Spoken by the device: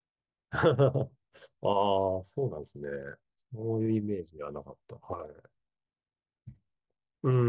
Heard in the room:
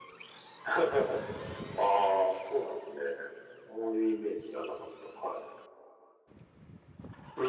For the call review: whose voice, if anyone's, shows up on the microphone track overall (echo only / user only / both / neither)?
echo only